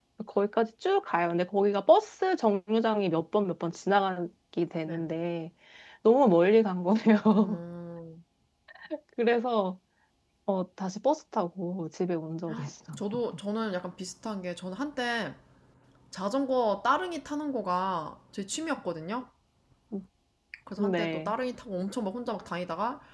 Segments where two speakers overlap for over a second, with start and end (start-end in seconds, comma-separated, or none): none